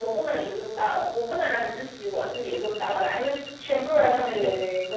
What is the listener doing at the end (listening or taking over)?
listening